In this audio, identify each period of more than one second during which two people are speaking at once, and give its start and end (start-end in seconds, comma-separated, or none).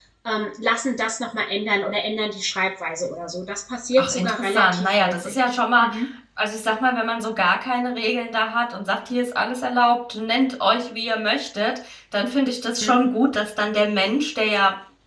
4.0-5.3